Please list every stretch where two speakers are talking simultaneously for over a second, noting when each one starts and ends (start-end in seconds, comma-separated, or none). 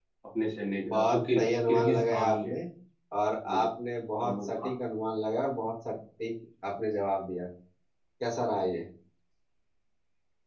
0.9-2.5